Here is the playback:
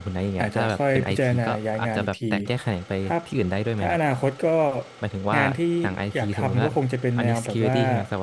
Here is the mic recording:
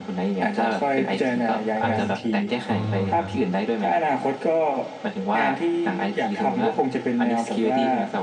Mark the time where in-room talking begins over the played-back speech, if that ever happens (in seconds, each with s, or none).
1.8 s